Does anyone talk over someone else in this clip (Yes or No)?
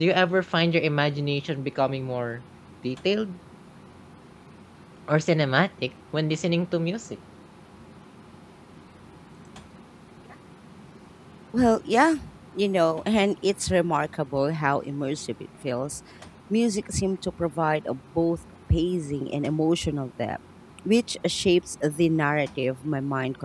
No